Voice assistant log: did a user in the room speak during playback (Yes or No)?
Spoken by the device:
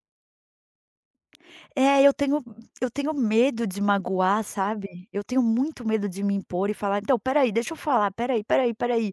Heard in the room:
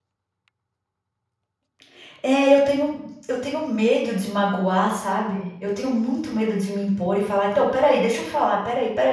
No